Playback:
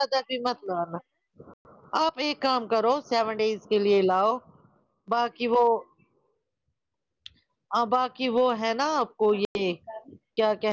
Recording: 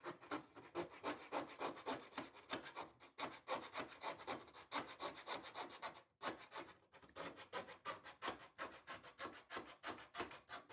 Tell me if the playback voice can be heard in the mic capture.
No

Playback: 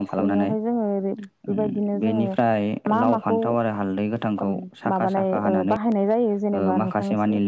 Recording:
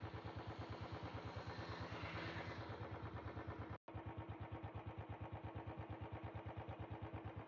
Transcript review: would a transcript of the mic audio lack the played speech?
Yes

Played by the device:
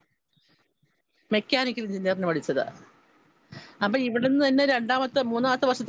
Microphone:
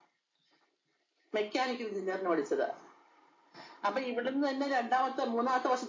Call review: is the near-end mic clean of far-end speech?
No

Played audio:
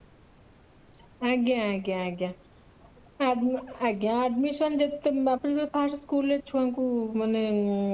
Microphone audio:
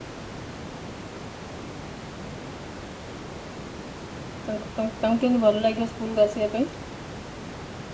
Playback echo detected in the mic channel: No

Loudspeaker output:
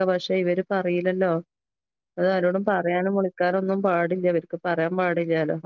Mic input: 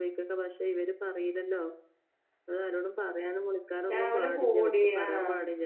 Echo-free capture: No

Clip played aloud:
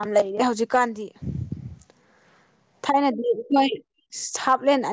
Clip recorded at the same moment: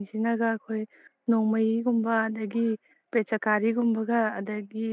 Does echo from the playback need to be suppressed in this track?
No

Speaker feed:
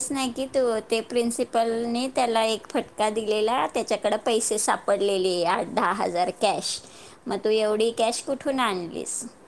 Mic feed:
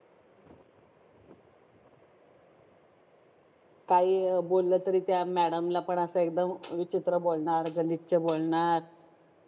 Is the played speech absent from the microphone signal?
Yes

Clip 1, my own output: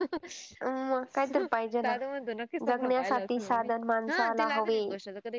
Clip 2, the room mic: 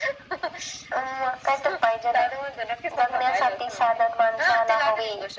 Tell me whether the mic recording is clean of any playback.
No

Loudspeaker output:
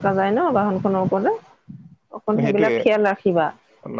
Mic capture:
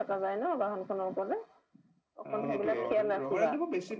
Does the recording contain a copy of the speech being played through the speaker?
Yes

